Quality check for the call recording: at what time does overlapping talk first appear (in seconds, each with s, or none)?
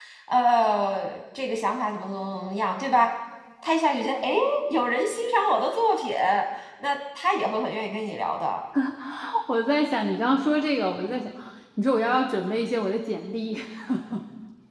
none